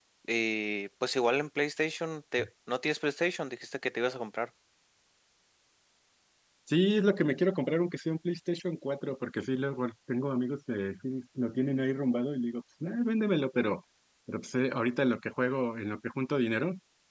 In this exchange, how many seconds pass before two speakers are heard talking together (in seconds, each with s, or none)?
none